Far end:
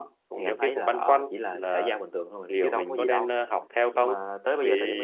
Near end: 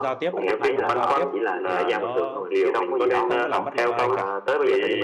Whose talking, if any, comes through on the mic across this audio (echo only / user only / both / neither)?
both